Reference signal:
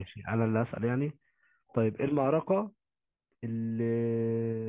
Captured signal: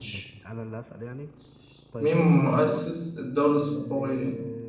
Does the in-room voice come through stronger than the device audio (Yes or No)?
Yes